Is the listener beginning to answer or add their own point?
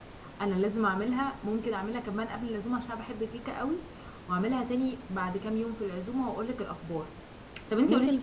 No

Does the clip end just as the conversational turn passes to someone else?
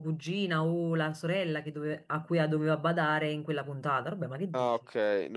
Yes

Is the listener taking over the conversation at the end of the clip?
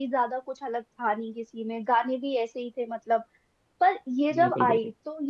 No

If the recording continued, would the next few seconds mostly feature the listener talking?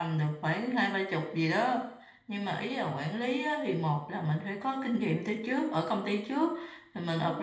No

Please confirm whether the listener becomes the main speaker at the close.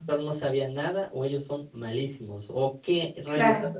No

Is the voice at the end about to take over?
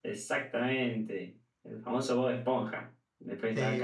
Yes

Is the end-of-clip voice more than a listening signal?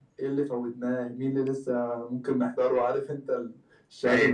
No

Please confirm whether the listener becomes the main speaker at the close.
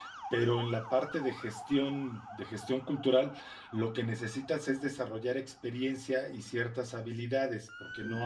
Yes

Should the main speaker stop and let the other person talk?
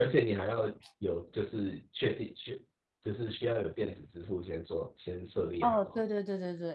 Yes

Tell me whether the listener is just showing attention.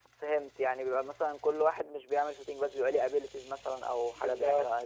No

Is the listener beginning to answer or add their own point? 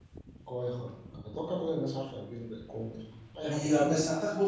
Yes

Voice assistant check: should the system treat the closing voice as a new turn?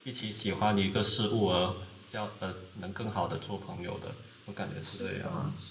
Yes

